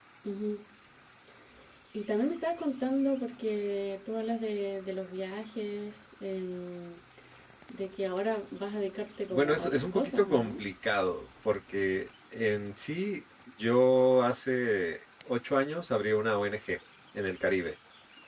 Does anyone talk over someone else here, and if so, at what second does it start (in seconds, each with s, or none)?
9.3 s